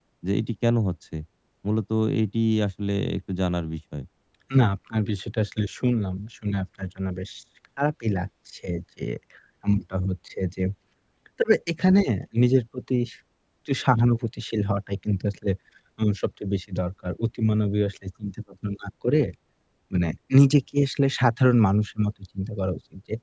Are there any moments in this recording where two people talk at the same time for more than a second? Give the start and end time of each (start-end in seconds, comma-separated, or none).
none